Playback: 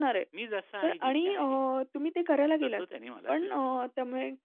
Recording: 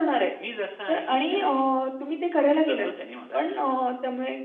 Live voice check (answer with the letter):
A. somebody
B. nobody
B